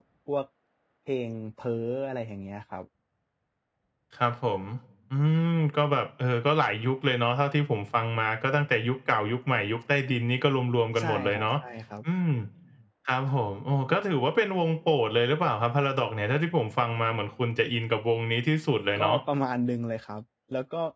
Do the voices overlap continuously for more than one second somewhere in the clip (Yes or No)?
No